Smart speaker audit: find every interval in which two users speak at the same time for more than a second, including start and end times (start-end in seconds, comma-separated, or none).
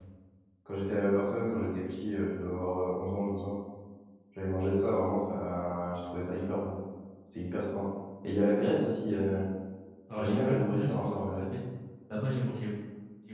10.1-11.4